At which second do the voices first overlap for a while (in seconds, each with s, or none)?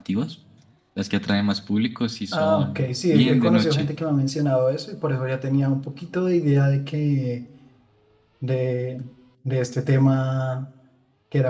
2.3 s